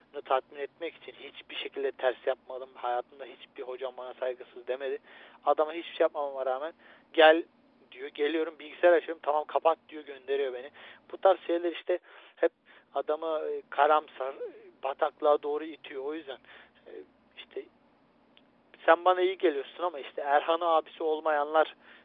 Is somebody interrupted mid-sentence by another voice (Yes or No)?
No